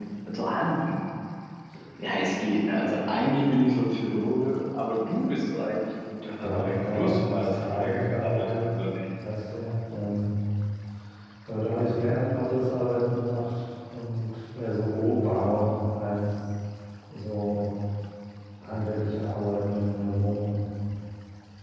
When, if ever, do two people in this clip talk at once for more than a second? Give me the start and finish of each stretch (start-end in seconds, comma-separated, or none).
6.4-8.7